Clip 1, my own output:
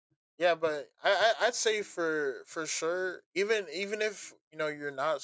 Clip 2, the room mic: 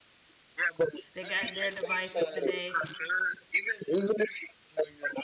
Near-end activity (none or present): present